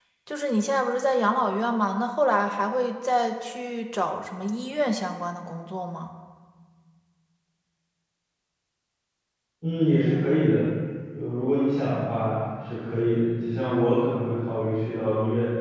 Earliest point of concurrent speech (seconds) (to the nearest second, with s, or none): none